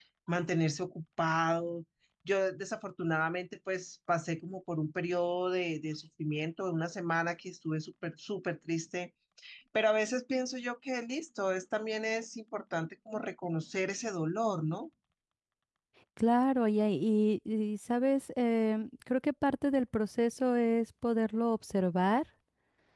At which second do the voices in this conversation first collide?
none

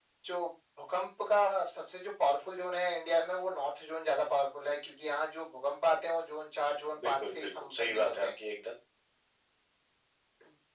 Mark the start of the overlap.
7 s

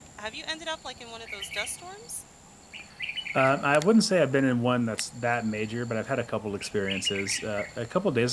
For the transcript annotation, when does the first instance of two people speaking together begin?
none

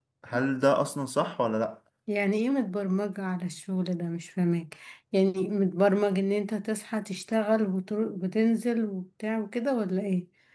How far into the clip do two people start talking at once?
none

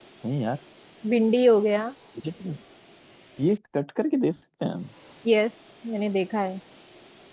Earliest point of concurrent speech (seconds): none

